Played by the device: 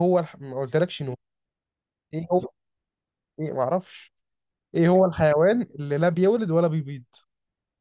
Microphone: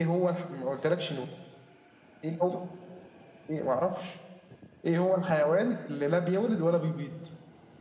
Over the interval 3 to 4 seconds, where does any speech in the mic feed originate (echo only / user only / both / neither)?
echo only